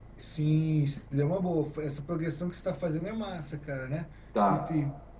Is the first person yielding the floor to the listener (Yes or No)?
No